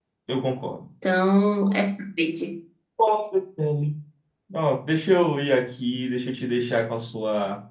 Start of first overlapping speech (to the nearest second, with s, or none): none